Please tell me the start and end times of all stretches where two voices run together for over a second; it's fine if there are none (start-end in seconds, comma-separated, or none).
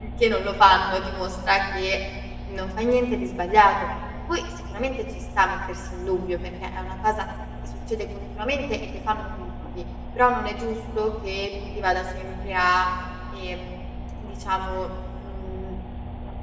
none